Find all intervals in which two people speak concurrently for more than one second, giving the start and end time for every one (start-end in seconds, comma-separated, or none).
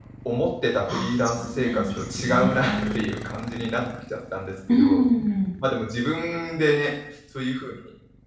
0.9-3.0